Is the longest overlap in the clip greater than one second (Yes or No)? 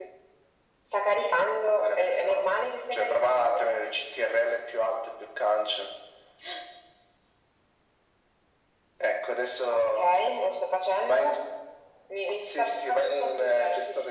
Yes